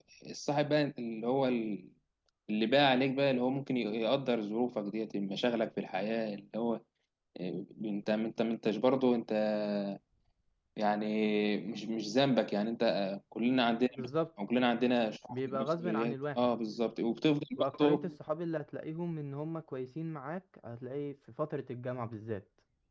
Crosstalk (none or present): present